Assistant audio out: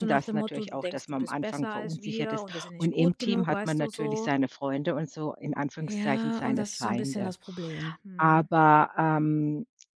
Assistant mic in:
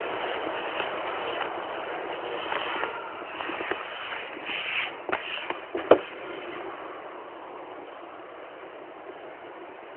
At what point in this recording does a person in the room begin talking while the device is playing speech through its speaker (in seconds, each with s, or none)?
none